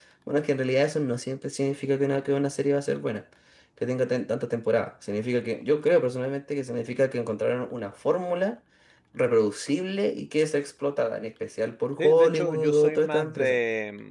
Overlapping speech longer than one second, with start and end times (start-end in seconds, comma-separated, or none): 12.0-13.6